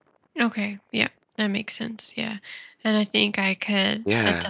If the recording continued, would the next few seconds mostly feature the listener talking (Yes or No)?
No